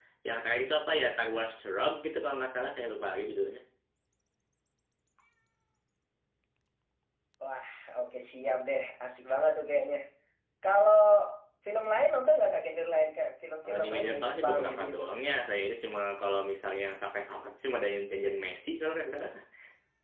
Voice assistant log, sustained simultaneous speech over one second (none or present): present